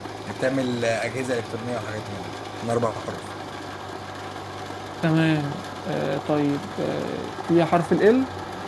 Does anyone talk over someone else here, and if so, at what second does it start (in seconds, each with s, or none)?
none